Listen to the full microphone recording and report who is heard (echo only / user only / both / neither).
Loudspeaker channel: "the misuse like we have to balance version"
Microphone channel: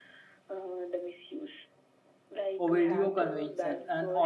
both